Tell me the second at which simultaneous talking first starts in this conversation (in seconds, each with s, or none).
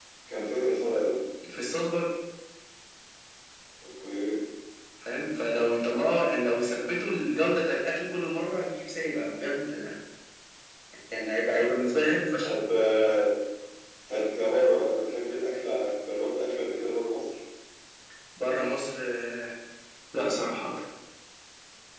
none